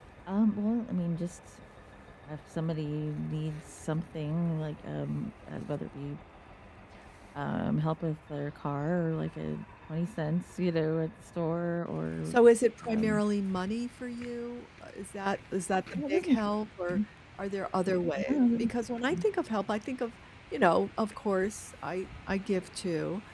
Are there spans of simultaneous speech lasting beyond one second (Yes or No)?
No